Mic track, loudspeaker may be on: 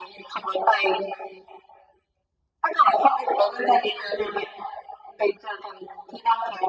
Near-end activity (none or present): none